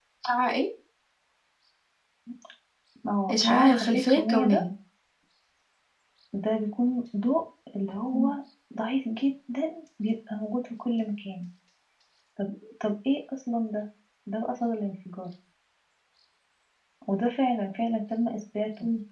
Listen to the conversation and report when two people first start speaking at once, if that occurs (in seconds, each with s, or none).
3.3 s